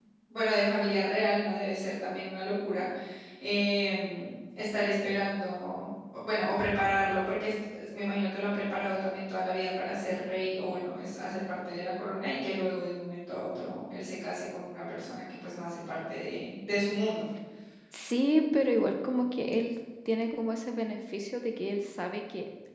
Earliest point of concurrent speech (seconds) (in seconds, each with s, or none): none